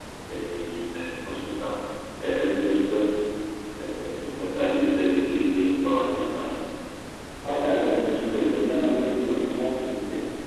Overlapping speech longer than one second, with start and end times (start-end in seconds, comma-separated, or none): 7.4-9.6